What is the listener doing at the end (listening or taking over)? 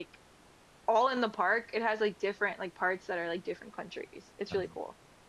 taking over